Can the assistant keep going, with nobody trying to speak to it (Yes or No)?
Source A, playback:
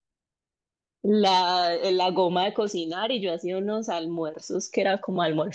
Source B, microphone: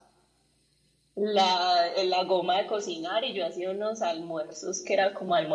Yes